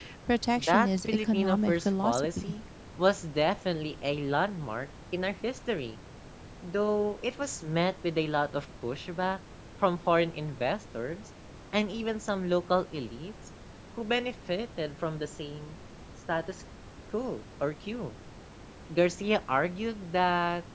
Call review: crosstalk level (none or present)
present